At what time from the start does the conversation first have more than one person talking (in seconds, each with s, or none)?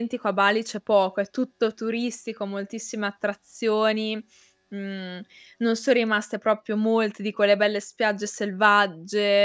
none